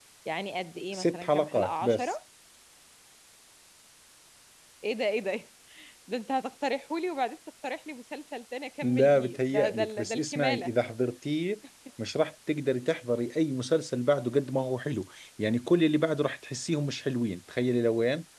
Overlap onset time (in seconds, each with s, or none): 0.9 s